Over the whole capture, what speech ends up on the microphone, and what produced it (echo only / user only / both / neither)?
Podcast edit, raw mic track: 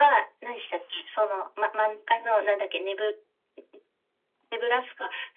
echo only